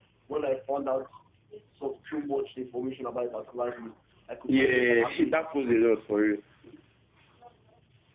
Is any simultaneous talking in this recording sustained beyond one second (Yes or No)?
Yes